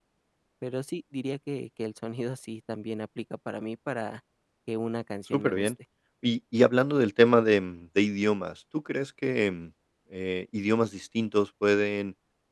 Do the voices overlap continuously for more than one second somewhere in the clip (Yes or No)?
No